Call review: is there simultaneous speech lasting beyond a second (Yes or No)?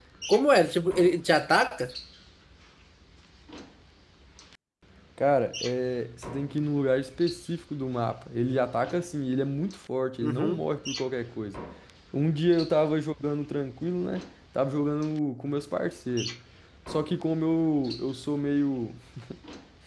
No